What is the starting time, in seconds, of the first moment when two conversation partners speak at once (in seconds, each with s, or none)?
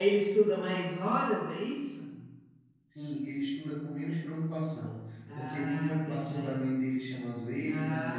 5.3 s